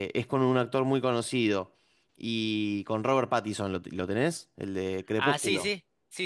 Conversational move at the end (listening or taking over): taking over